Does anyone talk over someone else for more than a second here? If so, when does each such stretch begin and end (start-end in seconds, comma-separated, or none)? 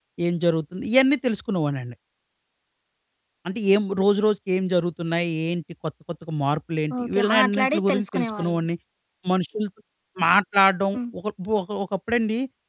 7.0-8.6